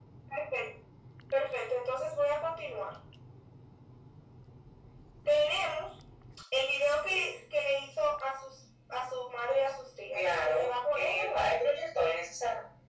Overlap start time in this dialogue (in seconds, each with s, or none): 10.1 s